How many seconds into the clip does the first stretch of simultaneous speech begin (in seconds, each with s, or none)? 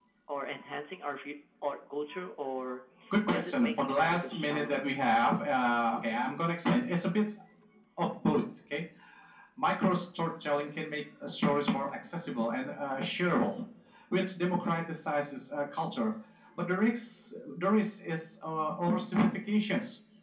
3.3 s